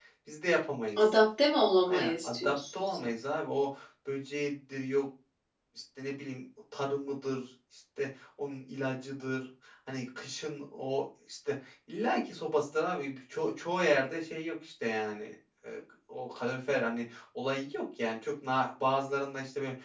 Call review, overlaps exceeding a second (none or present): present